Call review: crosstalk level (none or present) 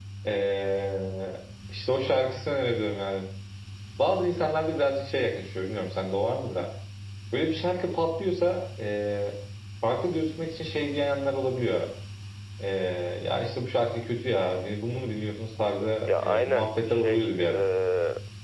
present